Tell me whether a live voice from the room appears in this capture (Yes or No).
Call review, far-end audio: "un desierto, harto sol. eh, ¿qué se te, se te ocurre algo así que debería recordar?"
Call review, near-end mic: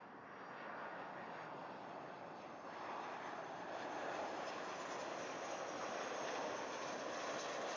No